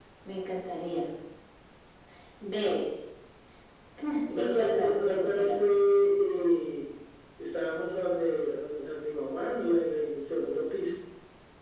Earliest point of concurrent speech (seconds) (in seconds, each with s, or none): 4.4 s